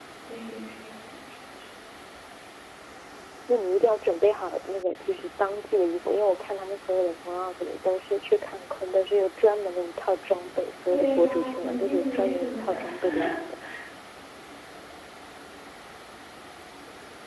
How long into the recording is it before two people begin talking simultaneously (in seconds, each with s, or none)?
10.9 s